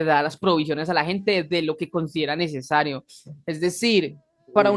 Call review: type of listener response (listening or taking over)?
listening